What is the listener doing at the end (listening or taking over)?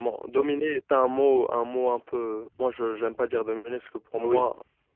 listening